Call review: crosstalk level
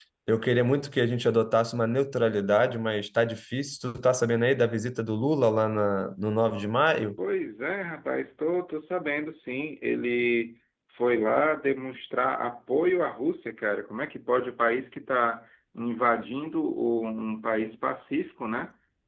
none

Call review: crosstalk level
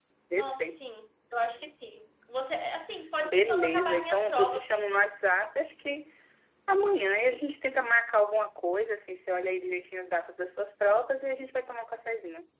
present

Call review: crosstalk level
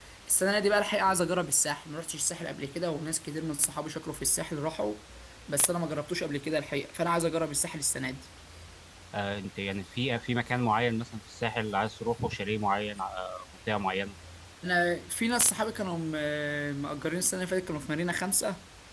none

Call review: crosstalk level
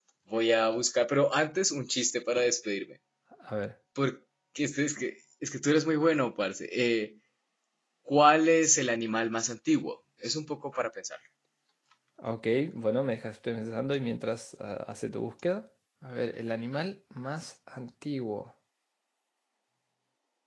none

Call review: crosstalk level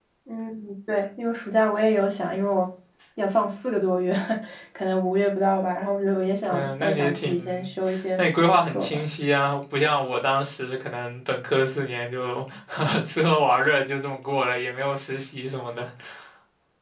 present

